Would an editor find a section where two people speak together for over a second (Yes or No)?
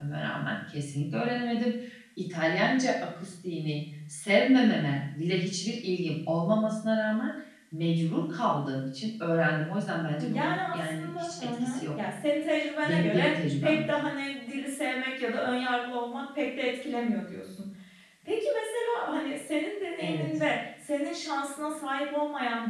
Yes